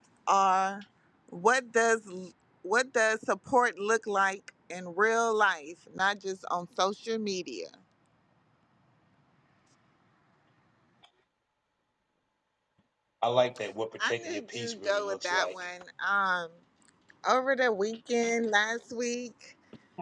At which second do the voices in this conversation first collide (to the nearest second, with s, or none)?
14 s